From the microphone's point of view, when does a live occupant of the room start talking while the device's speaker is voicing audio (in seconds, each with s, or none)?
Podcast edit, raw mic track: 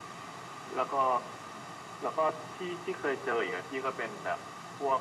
none